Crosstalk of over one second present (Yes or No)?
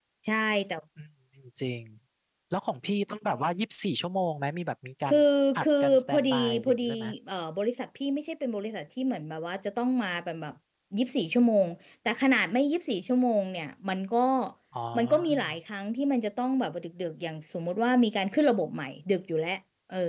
Yes